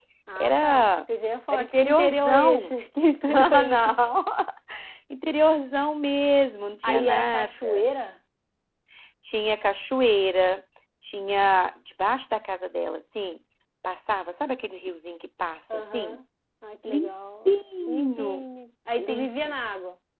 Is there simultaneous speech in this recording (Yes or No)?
Yes